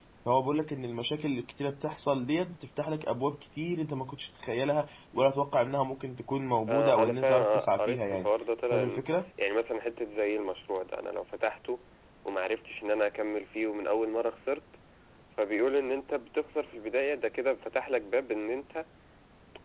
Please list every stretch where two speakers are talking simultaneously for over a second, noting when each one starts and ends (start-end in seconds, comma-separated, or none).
6.7-8.3